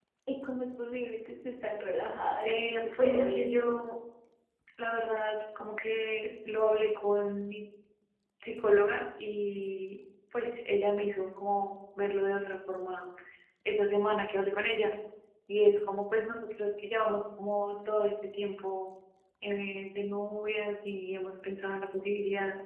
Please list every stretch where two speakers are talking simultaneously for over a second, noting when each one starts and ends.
2.5-3.8

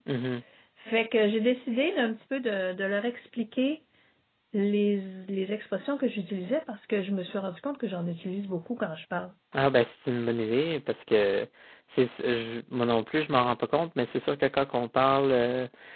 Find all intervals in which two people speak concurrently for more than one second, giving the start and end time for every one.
none

